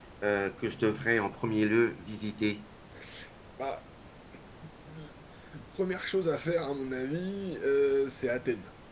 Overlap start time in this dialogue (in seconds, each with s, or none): none